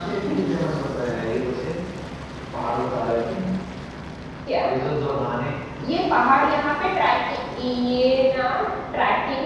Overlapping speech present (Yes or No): No